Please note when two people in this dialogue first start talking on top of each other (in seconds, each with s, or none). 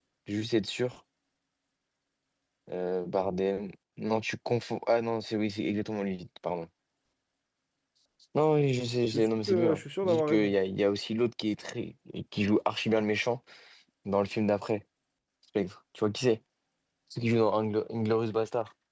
9.1 s